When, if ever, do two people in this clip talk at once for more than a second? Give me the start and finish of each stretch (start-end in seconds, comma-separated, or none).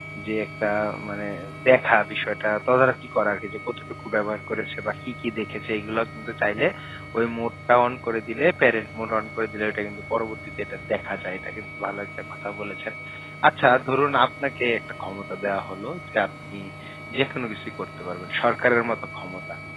none